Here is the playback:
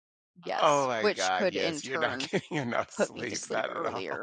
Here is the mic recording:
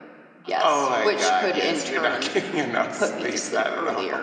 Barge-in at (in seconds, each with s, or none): none